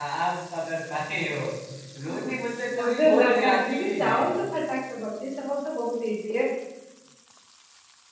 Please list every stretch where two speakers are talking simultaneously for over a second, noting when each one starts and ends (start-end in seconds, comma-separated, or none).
2.8-4.2